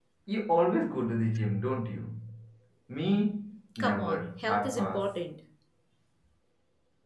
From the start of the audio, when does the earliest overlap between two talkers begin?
3.8 s

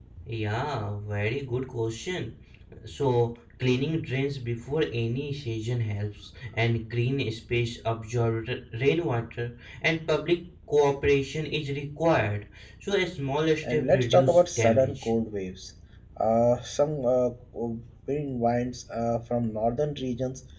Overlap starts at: 13.6 s

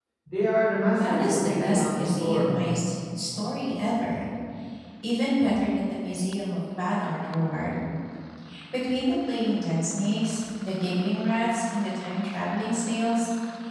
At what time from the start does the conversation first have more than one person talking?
0.9 s

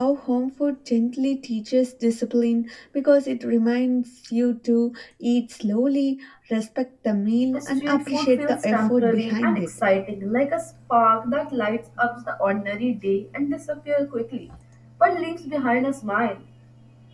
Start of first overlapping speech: 7.5 s

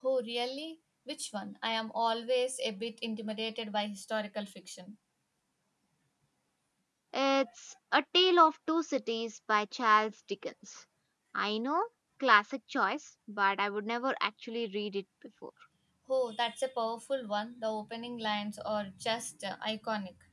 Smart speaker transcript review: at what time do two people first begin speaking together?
none

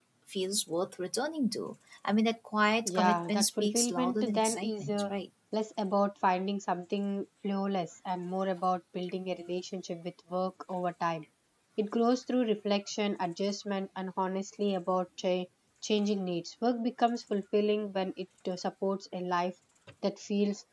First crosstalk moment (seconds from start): 2.9 s

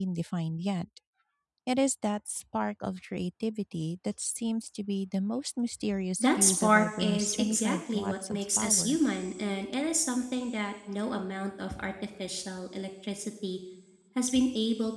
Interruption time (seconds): 6.2 s

